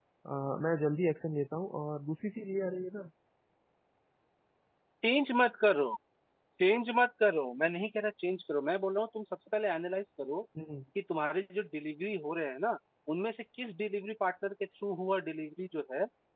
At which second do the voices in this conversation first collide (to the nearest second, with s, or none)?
none